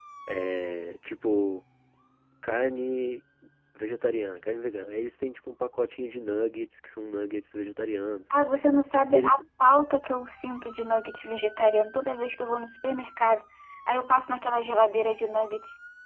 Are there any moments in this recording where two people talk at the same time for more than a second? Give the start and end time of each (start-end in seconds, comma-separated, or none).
none